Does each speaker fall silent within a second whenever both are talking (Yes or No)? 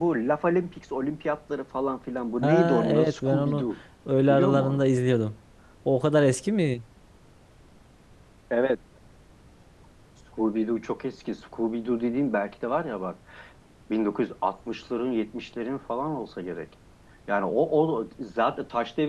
No